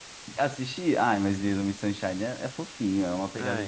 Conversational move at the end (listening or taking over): taking over